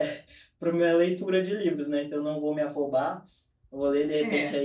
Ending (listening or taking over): listening